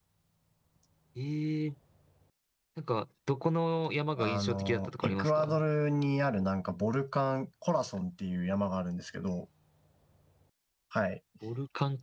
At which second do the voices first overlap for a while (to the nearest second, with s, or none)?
4 s